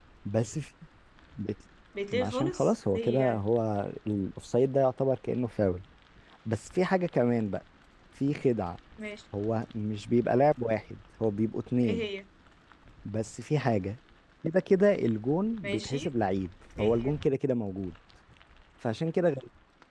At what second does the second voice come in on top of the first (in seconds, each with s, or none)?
2.2 s